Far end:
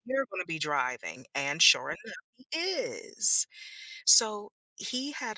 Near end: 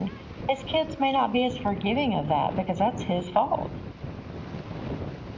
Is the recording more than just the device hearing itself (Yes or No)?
Yes